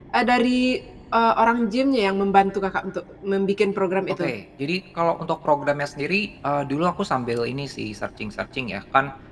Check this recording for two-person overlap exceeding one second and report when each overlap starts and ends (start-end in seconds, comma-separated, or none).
none